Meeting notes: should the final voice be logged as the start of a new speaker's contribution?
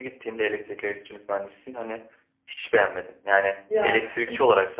No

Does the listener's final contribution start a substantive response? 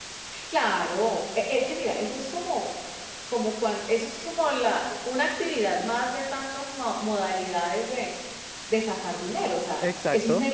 No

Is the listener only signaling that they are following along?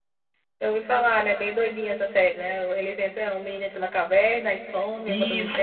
No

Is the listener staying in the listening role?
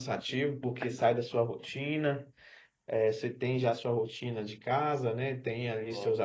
Yes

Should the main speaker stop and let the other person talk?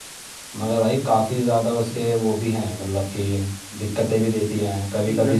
No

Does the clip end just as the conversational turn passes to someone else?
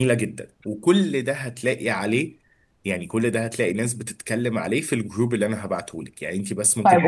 Yes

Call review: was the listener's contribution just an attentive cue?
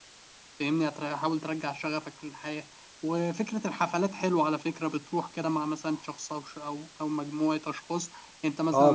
No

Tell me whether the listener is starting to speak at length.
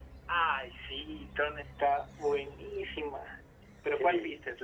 No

